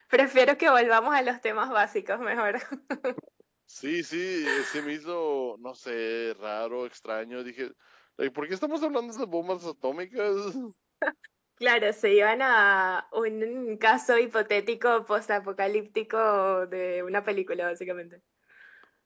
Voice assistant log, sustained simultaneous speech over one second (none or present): none